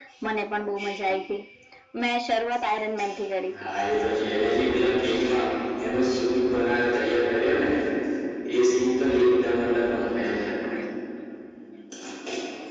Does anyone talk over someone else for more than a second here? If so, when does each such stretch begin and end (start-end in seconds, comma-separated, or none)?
none